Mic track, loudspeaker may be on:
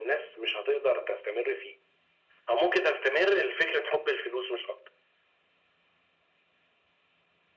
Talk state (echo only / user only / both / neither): echo only